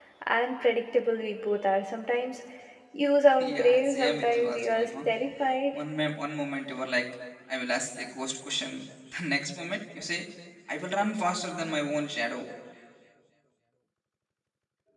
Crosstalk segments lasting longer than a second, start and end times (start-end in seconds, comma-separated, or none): 3.4-4.9